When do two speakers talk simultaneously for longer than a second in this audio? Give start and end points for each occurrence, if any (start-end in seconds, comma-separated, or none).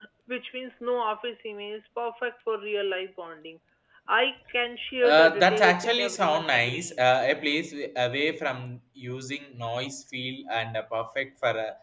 5.0-7.2